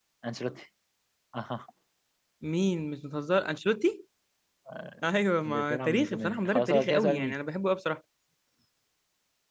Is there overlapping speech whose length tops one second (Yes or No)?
Yes